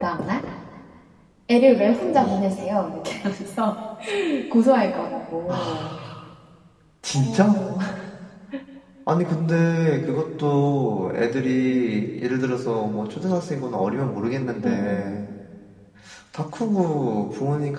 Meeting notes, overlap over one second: none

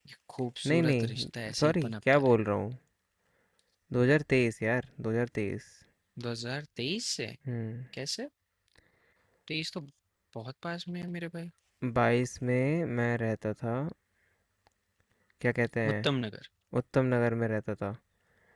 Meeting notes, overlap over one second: present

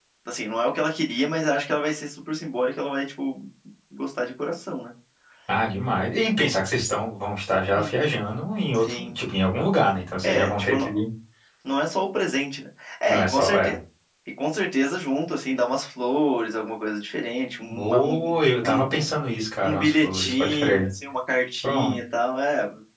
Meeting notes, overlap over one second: present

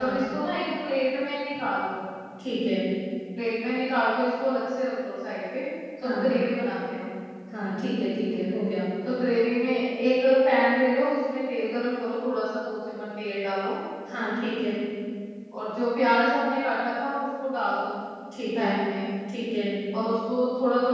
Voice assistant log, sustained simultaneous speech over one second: none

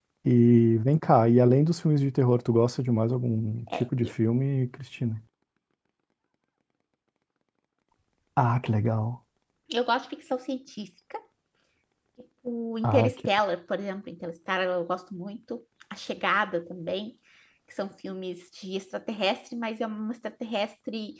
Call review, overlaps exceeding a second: none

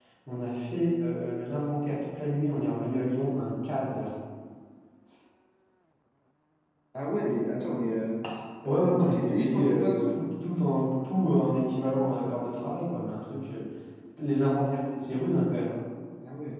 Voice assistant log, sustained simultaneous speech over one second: present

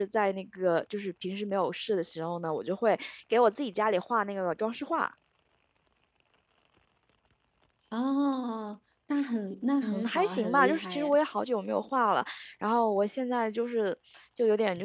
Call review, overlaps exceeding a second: present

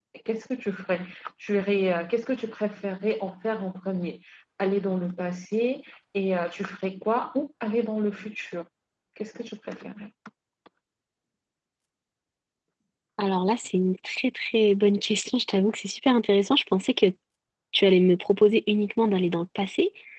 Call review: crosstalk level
none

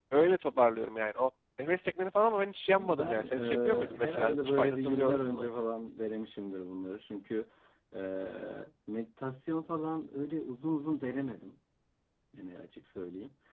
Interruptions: present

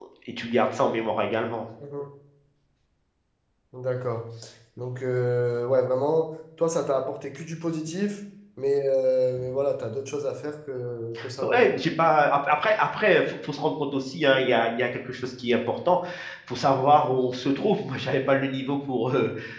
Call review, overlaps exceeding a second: none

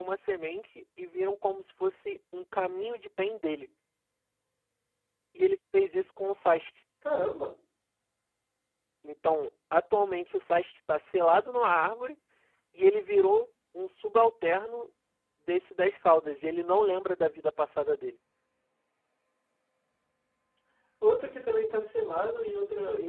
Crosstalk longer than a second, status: none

